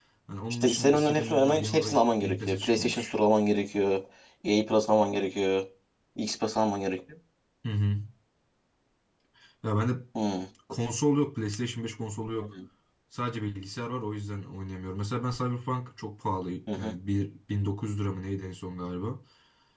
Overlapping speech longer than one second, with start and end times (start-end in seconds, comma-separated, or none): 0.6-3.1